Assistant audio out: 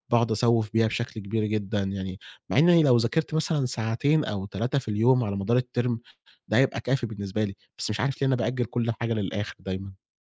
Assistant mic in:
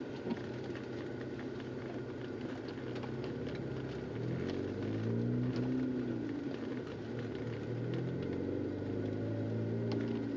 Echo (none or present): none